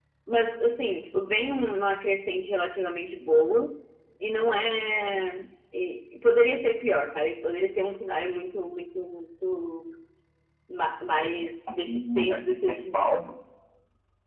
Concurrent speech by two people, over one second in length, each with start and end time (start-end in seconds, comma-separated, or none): 11.7-12.9